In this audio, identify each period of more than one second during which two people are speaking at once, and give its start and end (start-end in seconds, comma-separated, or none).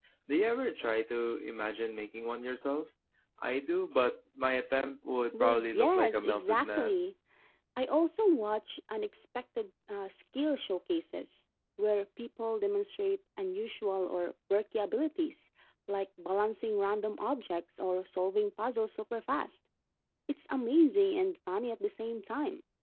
5.3-7.1